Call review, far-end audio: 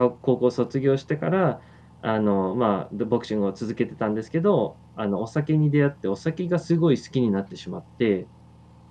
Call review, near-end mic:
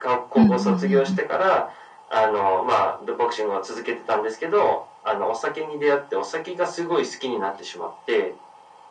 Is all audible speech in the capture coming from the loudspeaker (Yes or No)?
No